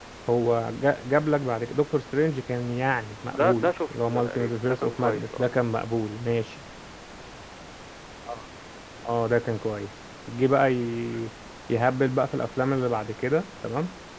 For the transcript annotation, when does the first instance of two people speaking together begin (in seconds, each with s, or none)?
3.3 s